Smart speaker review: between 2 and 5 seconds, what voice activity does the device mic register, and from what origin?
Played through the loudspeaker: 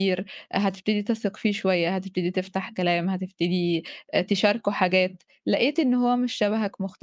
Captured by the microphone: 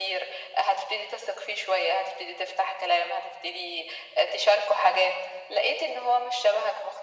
echo only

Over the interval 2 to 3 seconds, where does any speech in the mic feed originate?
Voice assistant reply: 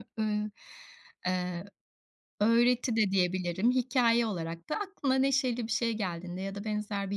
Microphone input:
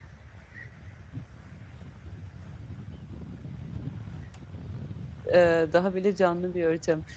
neither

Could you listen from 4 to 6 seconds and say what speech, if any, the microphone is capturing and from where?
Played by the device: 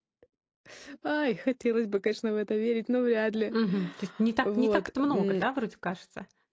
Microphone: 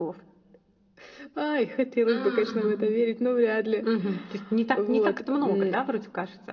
echo only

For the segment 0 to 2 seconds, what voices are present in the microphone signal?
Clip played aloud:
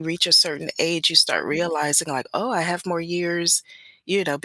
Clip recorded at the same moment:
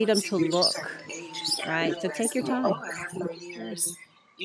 both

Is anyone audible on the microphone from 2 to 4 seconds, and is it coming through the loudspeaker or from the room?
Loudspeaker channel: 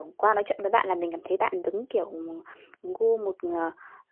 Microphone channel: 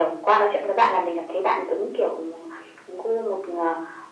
echo only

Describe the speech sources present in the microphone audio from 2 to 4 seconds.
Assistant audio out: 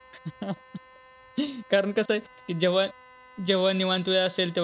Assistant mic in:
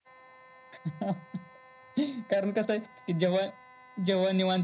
echo only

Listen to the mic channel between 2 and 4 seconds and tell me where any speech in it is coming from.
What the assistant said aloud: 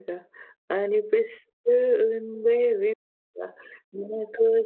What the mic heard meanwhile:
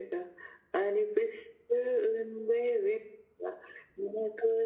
echo only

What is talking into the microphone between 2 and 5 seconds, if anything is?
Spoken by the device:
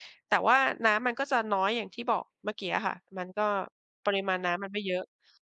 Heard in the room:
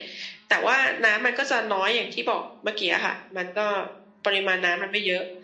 echo only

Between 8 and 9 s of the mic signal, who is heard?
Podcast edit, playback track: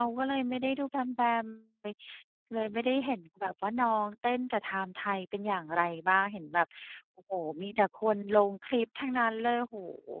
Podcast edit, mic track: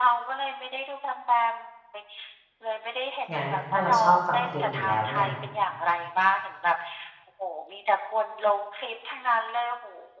echo only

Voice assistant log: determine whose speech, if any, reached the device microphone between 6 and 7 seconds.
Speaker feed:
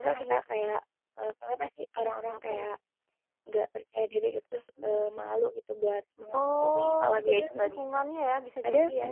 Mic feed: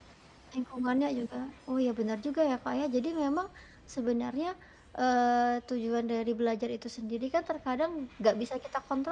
user only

